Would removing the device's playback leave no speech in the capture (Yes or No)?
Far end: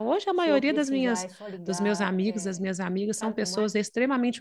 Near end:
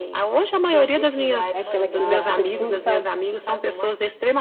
No